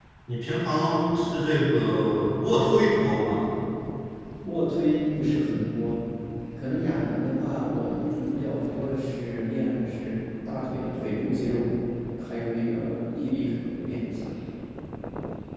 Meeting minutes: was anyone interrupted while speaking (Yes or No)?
No